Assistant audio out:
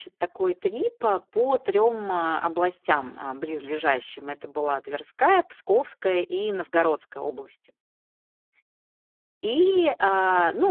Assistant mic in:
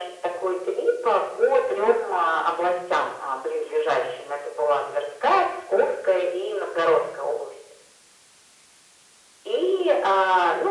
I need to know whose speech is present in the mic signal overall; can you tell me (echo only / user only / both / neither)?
echo only